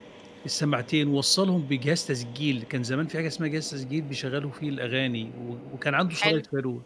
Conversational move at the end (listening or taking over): listening